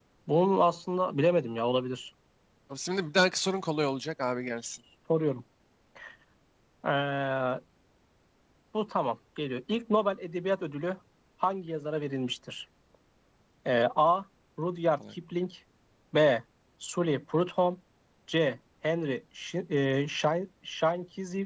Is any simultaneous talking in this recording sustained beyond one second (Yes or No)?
No